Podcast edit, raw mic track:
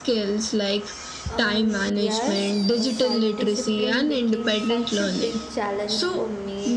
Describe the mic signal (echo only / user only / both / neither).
both